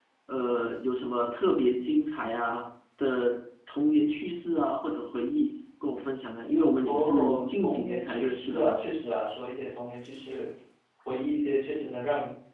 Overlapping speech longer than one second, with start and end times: 6.8-8.8

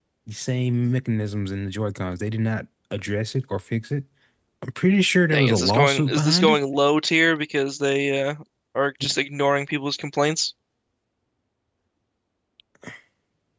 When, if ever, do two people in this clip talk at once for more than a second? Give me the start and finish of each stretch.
5.3-6.6

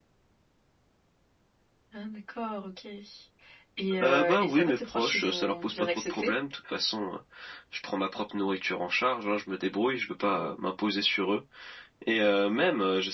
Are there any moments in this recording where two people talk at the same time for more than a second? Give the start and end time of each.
4.0-6.3

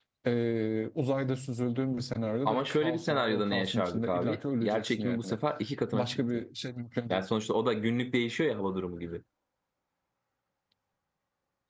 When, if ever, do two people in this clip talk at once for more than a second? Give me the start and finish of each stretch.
2.4-5.4

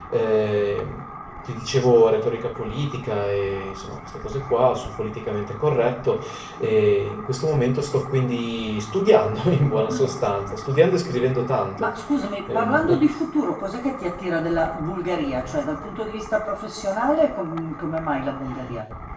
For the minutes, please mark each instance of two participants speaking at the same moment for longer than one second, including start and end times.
none

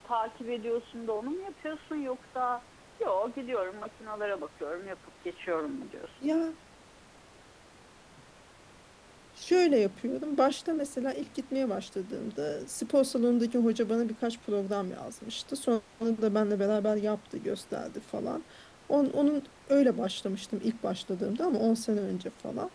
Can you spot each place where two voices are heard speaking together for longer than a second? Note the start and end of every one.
none

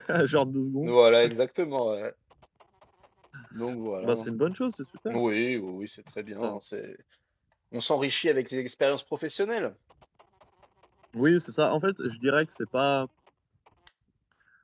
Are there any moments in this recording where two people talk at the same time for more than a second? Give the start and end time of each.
none

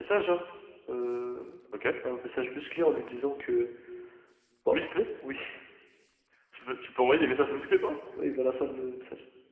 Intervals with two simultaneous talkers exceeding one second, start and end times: none

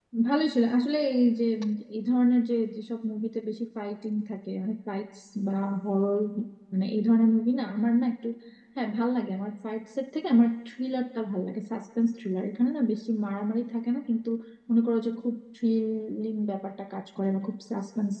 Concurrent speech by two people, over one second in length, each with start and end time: none

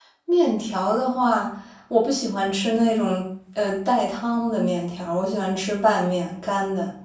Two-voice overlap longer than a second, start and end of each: none

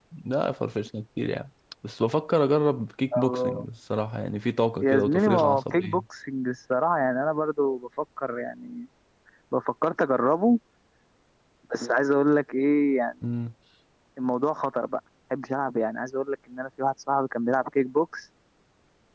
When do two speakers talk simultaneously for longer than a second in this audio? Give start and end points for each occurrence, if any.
4.8-6.0

